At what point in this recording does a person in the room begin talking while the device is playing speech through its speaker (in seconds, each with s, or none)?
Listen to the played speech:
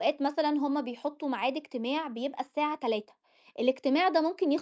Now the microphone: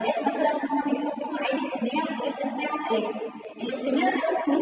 none